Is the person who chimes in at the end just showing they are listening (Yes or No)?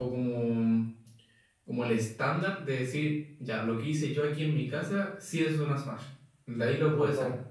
No